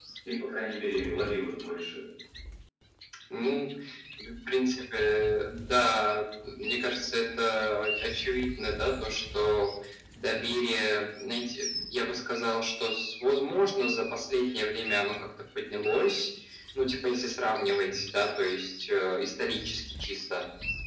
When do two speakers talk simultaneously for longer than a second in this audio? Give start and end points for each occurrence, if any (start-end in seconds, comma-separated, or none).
none